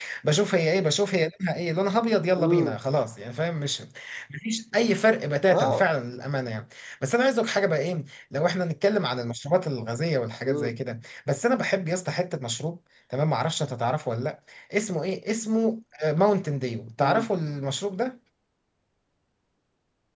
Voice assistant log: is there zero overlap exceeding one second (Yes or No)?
Yes